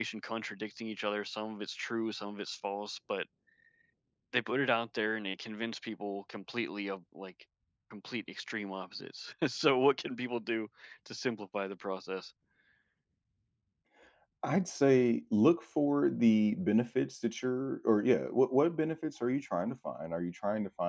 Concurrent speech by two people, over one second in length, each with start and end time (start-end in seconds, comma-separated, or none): none